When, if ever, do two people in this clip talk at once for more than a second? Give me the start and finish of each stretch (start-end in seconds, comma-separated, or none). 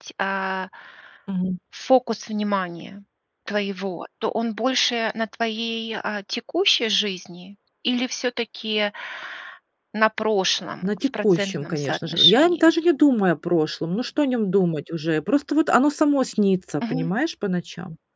10.8-12.7